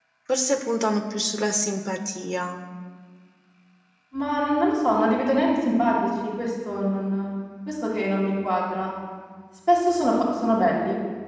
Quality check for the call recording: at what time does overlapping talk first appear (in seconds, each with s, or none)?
none